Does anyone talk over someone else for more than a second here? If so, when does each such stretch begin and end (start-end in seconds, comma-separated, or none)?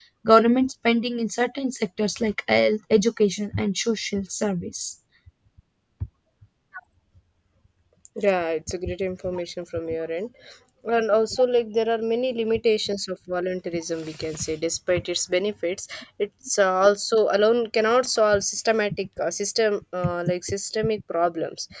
none